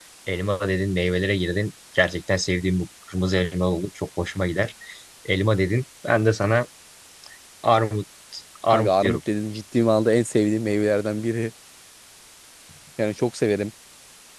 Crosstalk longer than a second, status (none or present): none